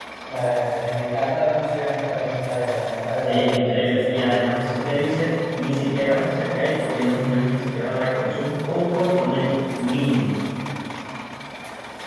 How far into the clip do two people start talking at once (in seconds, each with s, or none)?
3.3 s